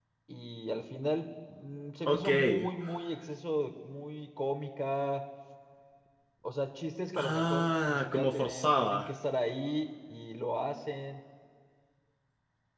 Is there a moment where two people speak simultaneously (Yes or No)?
Yes